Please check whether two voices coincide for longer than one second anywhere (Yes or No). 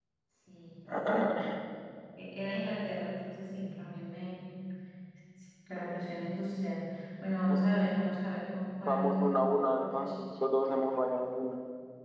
Yes